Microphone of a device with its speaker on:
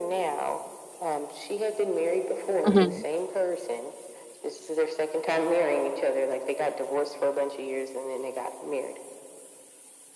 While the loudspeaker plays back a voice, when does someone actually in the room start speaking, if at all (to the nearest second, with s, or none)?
3 s